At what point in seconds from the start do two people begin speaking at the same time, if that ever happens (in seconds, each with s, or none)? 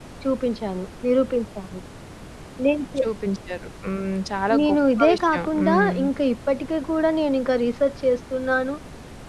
4.5 s